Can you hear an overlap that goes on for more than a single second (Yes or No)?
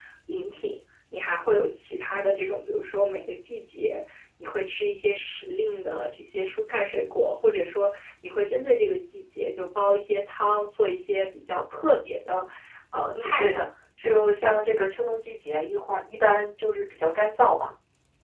No